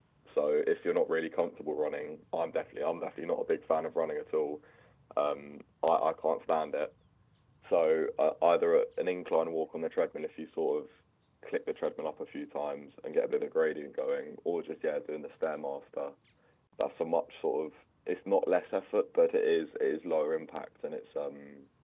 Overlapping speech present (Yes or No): No